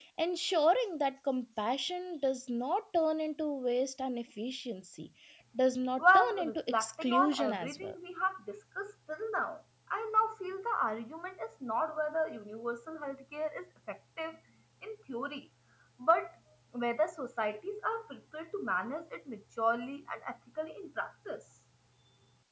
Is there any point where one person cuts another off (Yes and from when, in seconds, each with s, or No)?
Yes, from 6.0 s